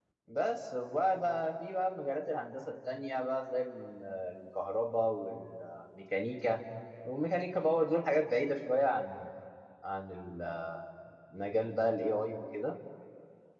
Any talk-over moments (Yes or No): No